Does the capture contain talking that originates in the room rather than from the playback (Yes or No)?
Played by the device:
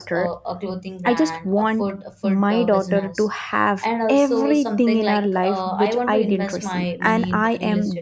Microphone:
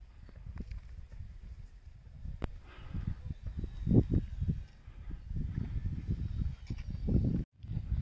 No